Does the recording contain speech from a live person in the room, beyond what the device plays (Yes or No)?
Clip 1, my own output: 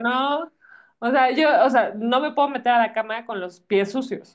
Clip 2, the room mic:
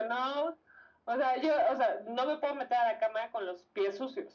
No